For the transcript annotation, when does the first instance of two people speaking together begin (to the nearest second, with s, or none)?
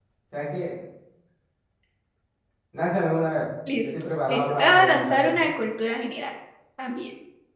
4 s